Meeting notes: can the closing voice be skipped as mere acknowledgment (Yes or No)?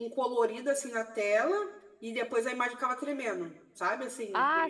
No